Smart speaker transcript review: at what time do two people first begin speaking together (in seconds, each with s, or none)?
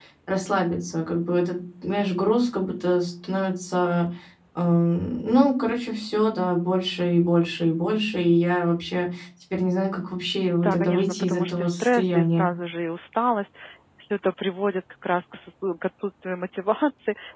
10.6 s